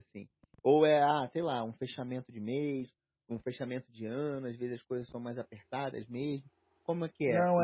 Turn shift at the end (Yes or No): Yes